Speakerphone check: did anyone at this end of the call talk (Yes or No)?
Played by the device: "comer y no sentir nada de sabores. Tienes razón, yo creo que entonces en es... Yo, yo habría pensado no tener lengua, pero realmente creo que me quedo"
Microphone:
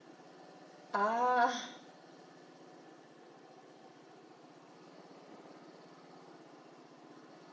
Yes